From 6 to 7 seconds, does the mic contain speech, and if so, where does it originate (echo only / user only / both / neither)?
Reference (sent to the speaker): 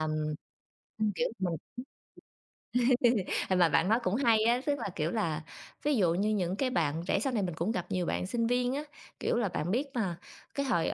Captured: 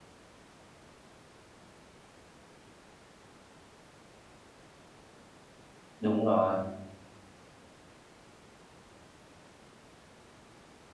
user only